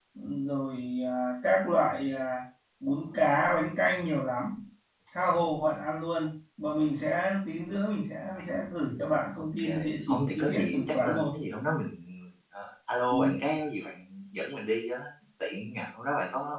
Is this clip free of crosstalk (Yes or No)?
No